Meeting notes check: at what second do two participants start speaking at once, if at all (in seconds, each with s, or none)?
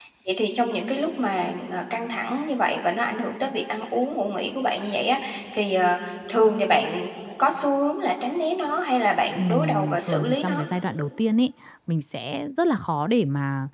9.4 s